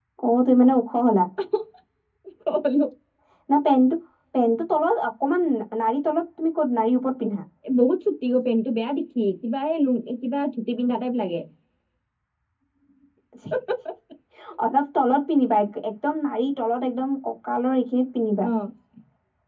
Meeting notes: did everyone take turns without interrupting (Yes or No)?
Yes